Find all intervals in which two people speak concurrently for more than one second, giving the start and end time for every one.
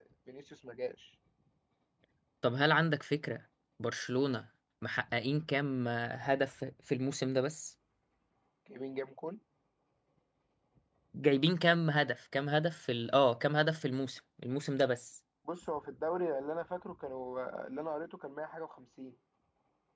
none

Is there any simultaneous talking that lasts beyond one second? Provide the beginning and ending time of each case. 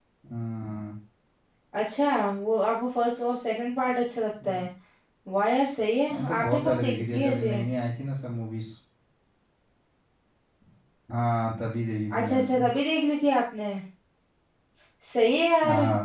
6.1-7.6

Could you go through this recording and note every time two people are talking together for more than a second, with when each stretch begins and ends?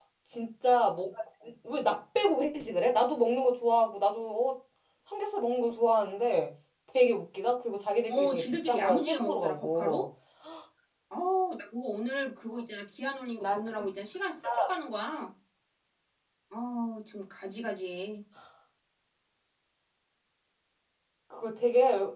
8.1-10.1

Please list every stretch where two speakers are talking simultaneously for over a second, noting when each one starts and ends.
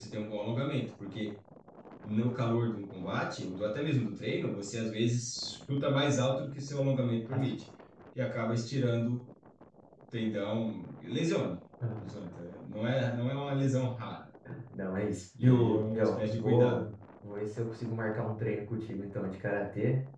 15.4-16.9

